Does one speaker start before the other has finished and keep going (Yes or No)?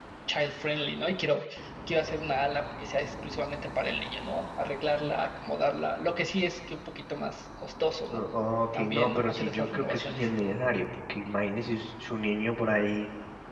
Yes